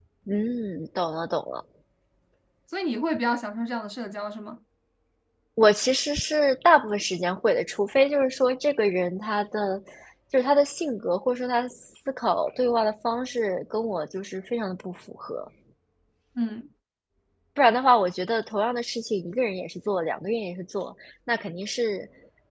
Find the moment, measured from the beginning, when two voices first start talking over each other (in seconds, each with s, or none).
none